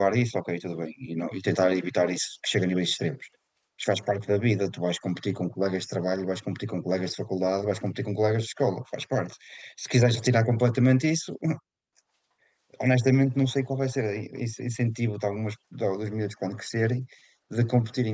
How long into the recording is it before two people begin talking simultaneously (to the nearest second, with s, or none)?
none